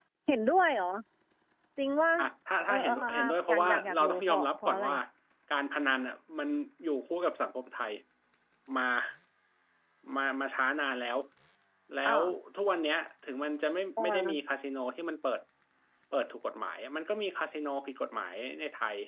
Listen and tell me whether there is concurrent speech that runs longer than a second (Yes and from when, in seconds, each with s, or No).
Yes, from 2.7 s